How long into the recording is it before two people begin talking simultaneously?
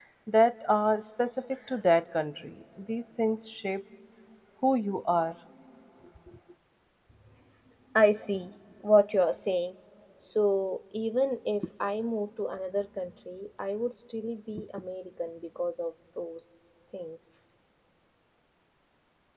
none

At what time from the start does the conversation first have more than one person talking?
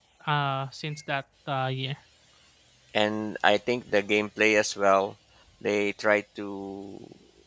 none

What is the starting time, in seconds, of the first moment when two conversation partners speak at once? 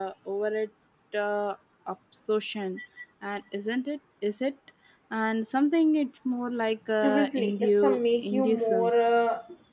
7.0 s

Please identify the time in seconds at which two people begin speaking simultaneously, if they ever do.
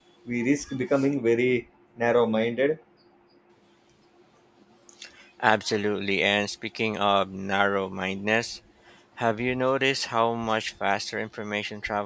none

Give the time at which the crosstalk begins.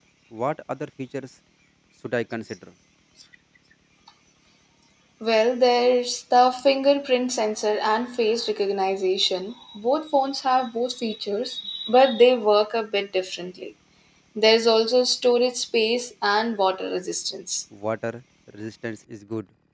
none

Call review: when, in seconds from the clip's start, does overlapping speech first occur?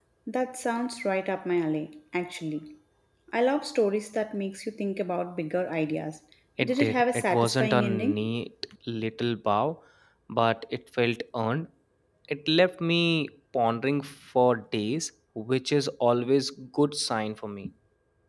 6.6 s

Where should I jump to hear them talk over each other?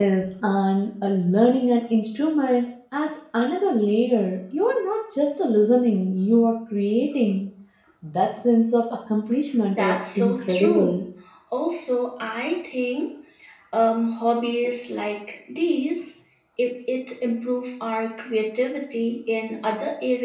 9.7 s

